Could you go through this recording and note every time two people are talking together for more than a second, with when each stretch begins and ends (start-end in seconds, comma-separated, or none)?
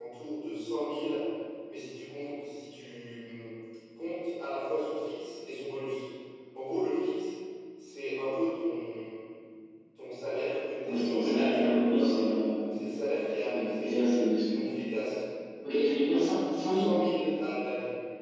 10.8-12.2